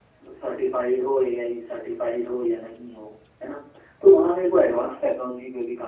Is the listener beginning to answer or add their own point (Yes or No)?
No